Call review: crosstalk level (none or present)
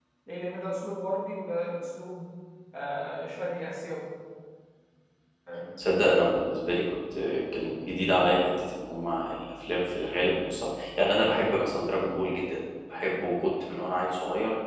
none